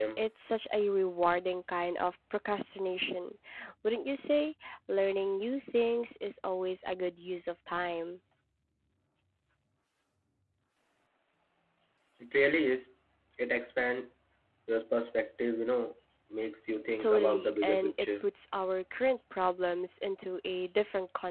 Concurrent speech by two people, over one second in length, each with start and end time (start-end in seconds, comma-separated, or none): 17.0-18.3